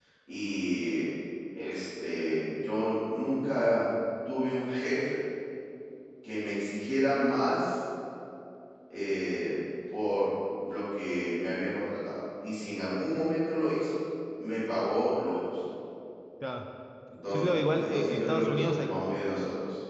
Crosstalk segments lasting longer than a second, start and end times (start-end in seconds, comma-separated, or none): 17.3-18.9